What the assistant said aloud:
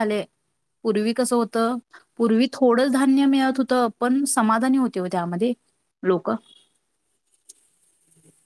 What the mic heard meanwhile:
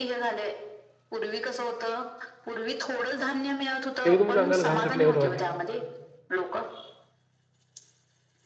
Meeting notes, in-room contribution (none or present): present